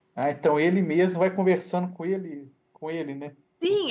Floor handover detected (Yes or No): Yes